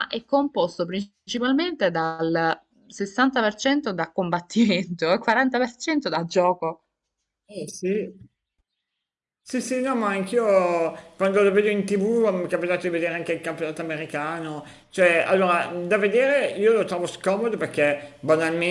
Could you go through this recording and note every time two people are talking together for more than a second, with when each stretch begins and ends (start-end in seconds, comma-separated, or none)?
none